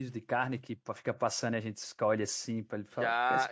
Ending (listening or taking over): taking over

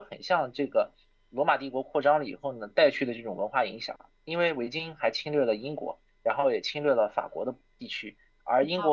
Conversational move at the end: listening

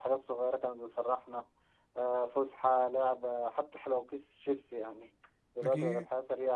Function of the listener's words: listening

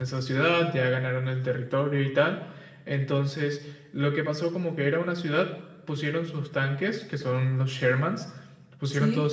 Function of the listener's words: listening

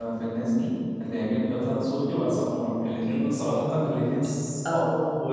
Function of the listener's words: taking over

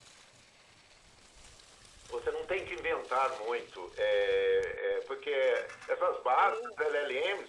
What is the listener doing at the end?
listening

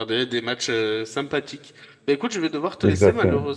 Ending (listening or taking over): listening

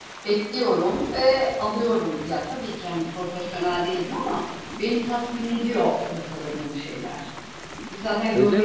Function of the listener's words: taking over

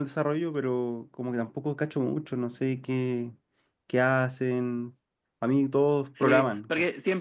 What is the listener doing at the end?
taking over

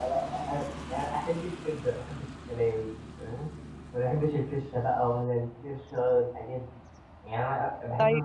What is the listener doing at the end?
listening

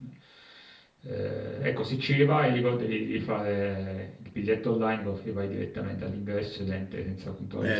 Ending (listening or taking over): taking over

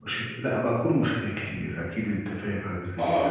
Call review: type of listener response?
taking over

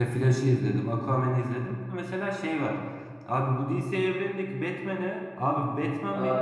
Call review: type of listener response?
listening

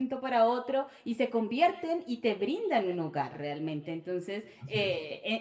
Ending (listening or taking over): listening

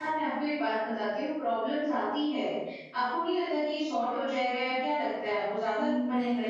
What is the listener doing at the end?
taking over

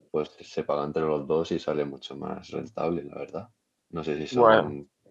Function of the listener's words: listening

